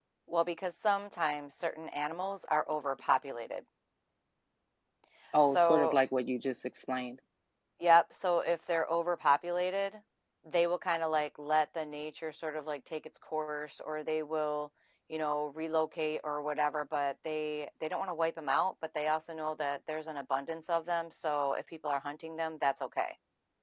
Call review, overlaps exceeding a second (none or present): none